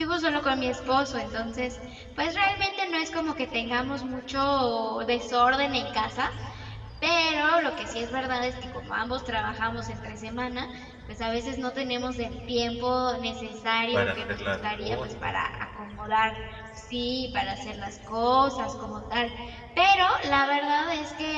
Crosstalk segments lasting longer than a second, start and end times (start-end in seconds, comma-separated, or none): 13.9-15.3